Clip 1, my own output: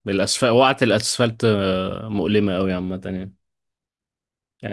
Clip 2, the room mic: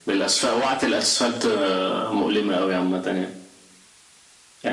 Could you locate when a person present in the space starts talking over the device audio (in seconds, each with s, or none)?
none